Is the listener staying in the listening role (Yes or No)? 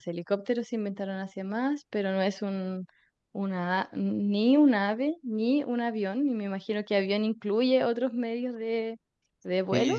No